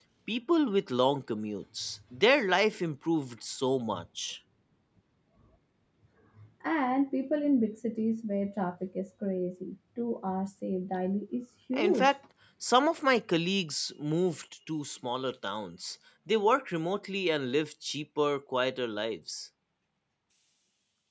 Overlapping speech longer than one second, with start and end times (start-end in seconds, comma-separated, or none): none